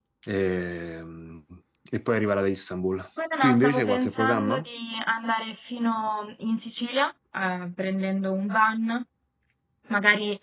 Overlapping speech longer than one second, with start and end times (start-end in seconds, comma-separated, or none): 3.4-4.6